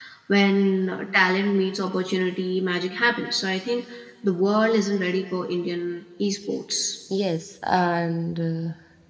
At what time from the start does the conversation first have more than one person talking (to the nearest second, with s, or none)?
none